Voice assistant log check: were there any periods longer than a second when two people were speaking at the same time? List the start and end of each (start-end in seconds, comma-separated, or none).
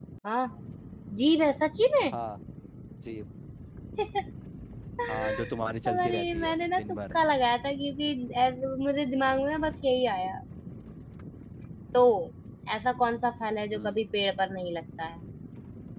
5.9-7.1